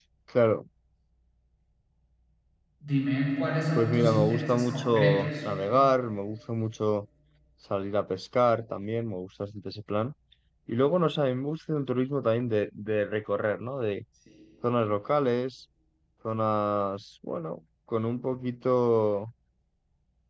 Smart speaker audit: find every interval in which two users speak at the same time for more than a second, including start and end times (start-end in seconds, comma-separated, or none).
3.8-5.3